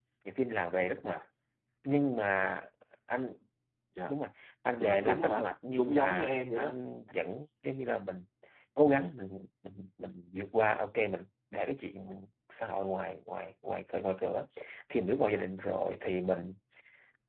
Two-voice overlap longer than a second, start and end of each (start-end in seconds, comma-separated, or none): 4.8-6.8